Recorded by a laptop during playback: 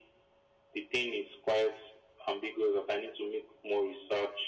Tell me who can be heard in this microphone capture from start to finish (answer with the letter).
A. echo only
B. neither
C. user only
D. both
A